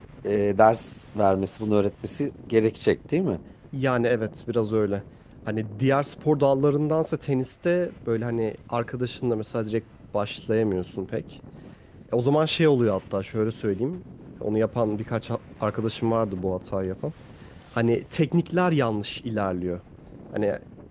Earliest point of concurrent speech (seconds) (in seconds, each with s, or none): none